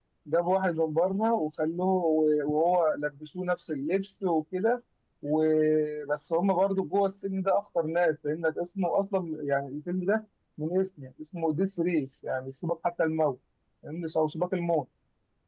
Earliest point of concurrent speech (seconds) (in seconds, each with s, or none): none